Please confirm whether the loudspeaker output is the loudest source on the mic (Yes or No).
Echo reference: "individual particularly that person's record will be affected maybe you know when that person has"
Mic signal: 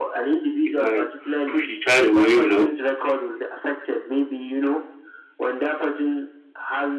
No